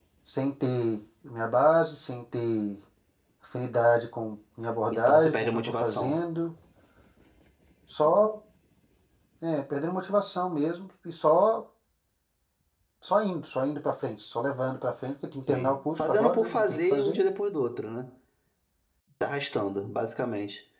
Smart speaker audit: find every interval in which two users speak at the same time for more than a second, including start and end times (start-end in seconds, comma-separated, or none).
4.9-6.2, 15.4-17.2